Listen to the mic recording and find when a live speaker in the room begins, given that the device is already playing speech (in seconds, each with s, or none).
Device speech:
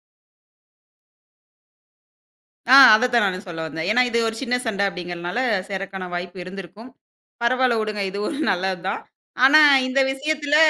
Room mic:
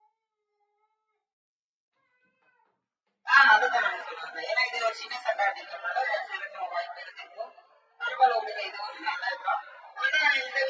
none